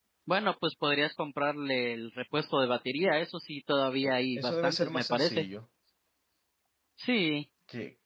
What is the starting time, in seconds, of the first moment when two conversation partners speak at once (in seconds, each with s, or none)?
4.0 s